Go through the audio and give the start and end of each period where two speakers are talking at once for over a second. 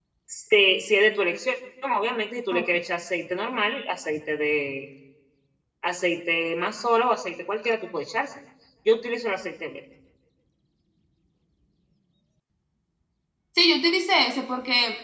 none

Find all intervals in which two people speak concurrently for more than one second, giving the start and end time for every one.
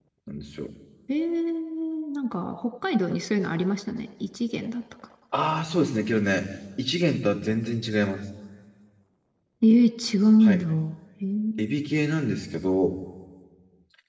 none

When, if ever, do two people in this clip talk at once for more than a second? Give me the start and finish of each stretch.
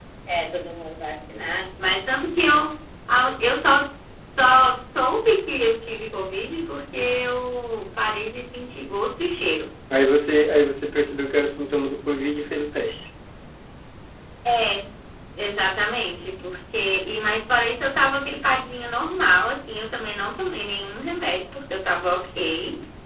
none

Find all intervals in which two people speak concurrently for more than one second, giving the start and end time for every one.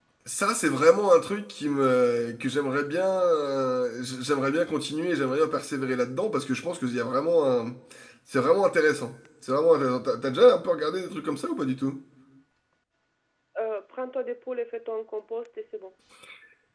none

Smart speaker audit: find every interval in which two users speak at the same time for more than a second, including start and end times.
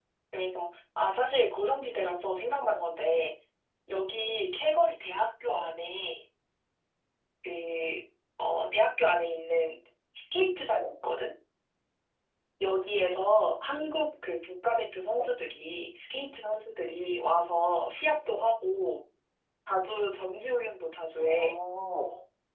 none

